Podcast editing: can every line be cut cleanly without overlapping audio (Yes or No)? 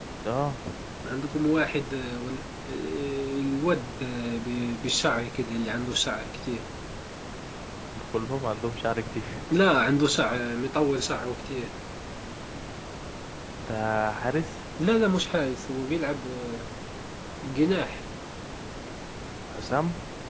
Yes